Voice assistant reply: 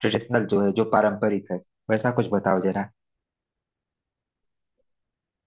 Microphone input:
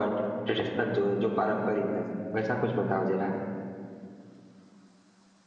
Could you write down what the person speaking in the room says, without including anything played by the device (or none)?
none